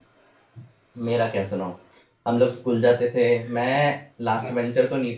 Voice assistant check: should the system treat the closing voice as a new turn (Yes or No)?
No